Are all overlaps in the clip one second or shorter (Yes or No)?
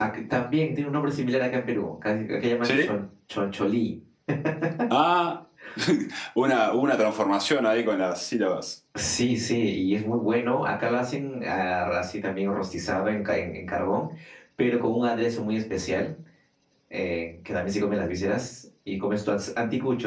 Yes